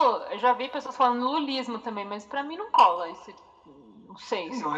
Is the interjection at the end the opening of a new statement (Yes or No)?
Yes